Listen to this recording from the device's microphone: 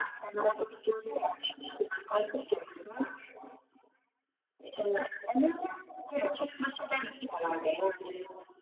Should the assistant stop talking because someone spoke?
No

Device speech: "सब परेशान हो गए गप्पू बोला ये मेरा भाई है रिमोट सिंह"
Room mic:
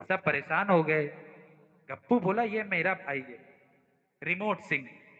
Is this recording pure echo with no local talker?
Yes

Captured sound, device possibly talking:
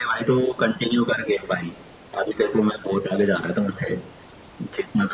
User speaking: No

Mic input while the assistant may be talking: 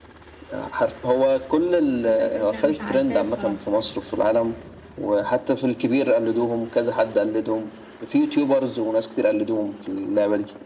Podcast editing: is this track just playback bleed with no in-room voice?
No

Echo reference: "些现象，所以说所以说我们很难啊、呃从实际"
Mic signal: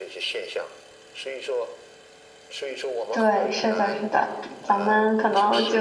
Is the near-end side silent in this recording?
No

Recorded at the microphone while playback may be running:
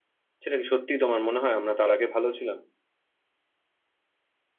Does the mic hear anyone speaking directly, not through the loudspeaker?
Yes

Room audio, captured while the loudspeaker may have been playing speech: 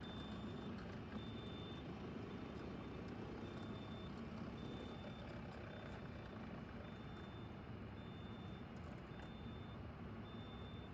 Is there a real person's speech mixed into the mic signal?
No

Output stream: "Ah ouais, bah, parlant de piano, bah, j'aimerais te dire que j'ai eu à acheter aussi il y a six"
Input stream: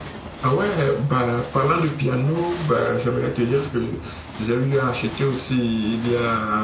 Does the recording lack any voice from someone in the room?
Yes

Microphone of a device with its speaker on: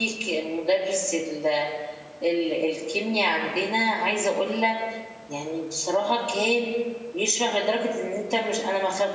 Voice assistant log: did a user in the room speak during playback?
Yes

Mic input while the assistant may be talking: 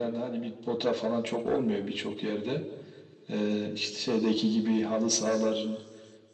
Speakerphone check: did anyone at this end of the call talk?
No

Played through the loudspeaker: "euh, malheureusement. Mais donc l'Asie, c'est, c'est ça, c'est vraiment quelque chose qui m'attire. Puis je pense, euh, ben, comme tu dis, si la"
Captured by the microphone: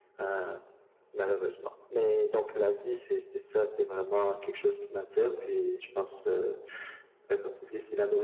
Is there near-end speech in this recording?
No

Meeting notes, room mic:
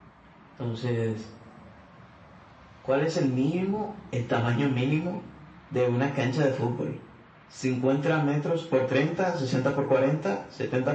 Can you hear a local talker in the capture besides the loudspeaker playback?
No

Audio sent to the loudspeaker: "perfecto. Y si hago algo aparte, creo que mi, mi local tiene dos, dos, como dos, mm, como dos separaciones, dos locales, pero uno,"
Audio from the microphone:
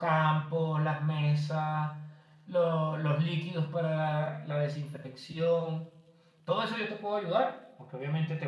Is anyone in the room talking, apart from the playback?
Yes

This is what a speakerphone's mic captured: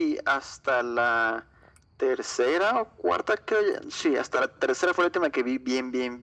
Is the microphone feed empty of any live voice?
Yes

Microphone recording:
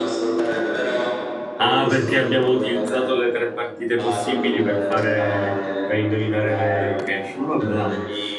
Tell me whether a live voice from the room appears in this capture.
Yes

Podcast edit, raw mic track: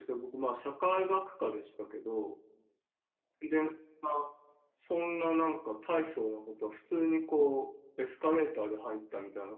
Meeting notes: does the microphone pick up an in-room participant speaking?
Yes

